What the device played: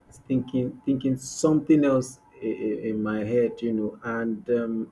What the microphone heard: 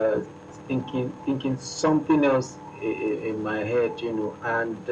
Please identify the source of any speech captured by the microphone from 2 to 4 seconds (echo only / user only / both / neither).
echo only